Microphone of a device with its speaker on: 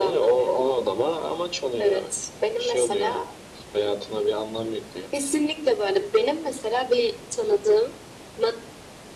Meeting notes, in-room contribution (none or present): none